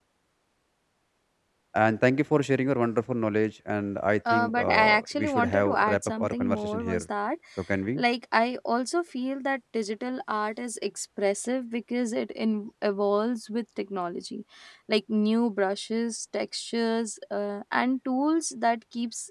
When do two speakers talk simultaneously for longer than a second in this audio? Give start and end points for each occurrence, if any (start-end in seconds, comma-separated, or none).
4.3-7.1